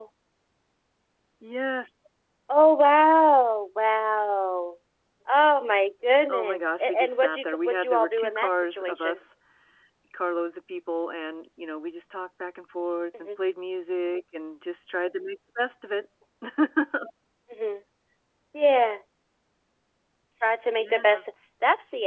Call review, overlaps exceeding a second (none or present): present